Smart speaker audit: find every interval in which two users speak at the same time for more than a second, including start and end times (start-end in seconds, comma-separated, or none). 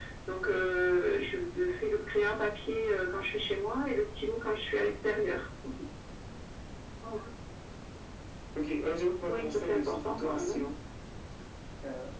9.3-10.6